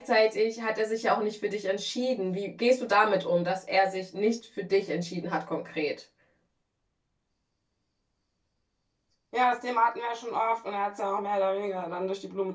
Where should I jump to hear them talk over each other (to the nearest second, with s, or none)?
none